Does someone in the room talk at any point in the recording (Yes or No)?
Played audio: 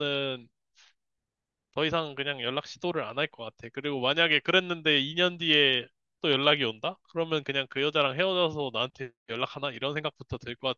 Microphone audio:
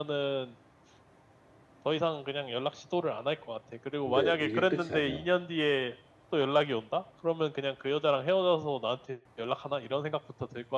Yes